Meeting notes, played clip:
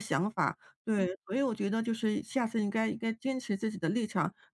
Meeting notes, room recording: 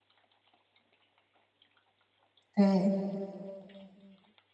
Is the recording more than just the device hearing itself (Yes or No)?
Yes